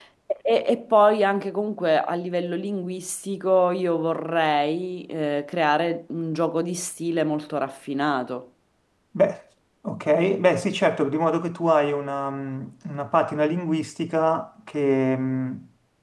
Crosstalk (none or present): none